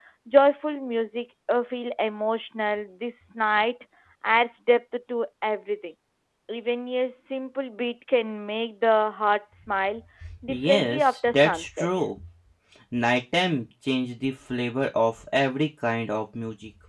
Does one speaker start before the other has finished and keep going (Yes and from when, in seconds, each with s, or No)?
Yes, from 10.5 s